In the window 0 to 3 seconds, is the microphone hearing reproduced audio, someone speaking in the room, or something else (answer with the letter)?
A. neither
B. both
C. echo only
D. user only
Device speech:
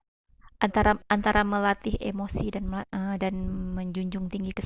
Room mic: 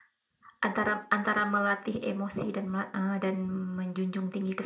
C